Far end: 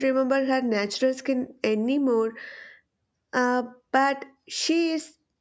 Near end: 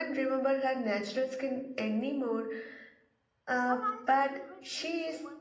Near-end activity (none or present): present